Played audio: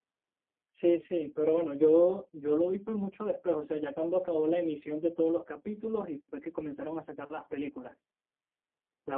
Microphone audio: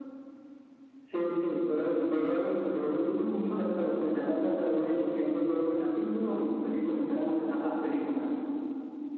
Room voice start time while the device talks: none

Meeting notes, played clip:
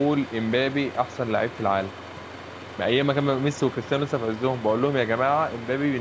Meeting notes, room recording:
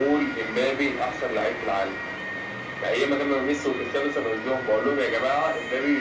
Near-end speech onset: none

